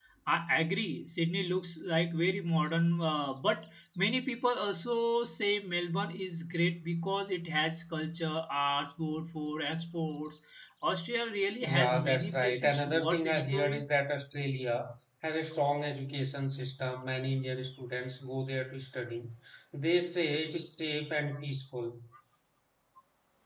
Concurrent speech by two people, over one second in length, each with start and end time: 11.6-13.8

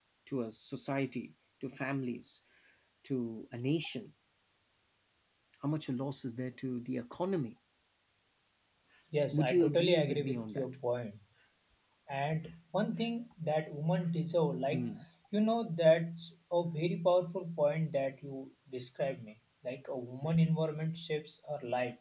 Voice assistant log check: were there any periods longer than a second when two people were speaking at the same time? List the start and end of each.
9.3-10.6

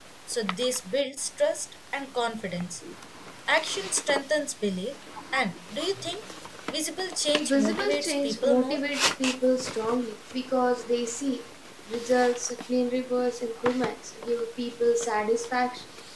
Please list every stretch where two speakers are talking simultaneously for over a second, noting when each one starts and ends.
7.4-8.8

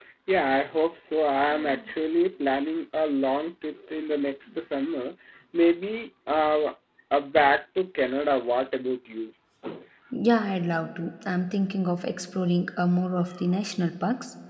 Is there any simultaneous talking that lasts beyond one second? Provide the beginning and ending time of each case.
none

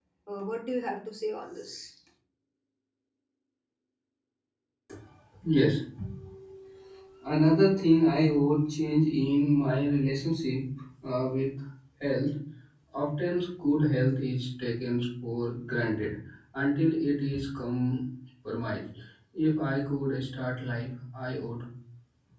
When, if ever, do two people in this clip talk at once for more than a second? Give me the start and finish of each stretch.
none

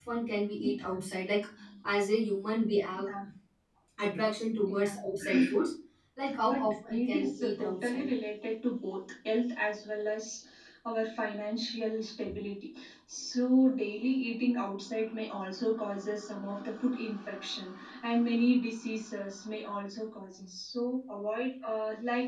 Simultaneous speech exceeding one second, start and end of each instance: 6.4-8.1

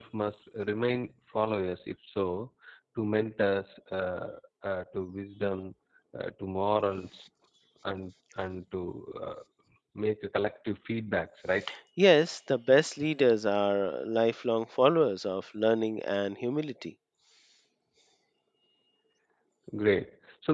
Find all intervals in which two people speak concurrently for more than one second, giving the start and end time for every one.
none

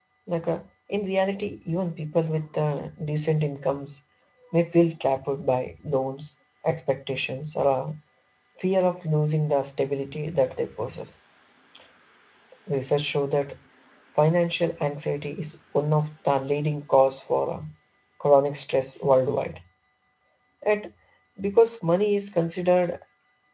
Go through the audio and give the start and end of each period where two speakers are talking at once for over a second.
none

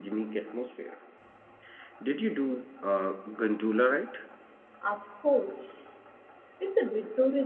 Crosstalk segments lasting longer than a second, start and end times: none

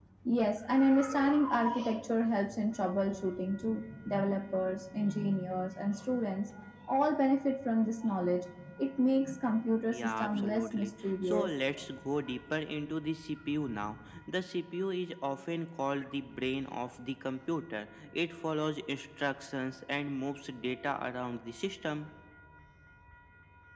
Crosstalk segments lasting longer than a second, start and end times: 9.9-11.6

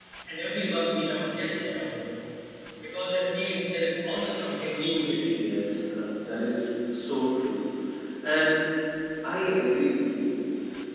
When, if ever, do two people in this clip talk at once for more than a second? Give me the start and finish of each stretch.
none

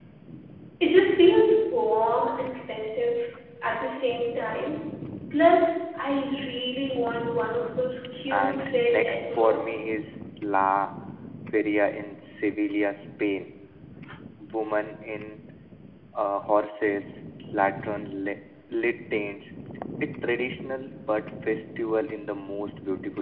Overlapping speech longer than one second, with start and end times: 8.3-9.8

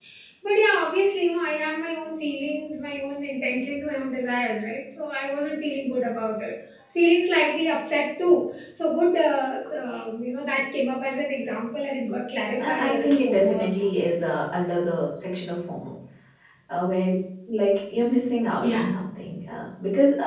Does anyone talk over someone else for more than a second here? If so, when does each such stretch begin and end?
12.6-13.9

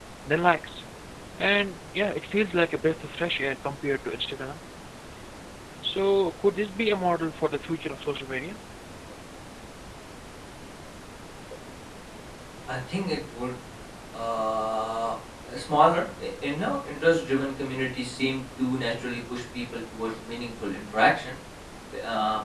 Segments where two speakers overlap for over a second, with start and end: none

